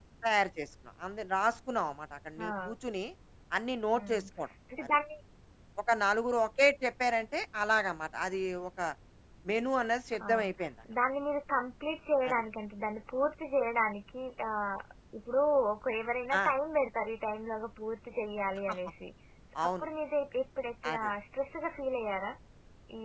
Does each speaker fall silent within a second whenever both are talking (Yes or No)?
Yes